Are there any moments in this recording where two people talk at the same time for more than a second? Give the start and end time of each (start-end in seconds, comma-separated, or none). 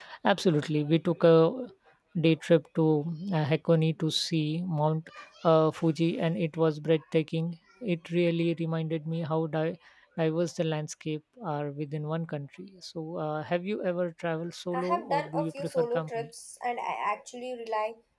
14.7-16.3